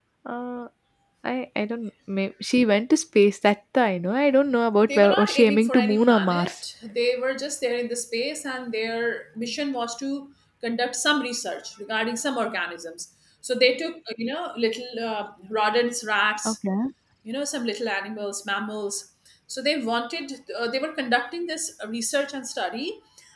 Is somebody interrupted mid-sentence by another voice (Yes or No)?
Yes